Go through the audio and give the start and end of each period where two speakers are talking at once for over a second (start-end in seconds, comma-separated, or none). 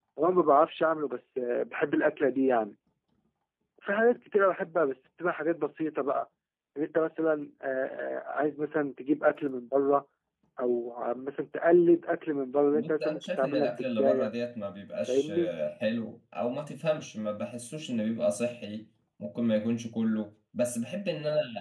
12.7-14.3